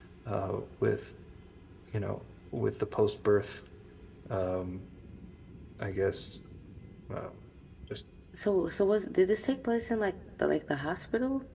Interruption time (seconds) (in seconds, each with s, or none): none